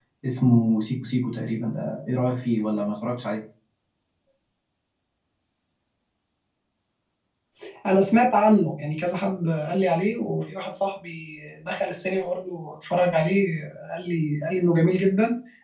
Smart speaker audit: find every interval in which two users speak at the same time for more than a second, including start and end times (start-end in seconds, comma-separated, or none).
none